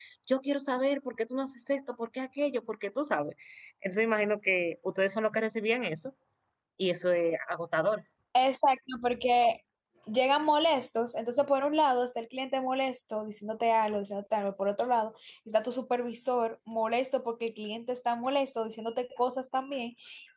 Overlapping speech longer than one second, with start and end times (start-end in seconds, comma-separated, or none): none